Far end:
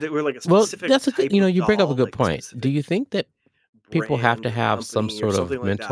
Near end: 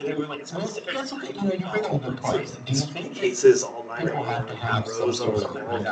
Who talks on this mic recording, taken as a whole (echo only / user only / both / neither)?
both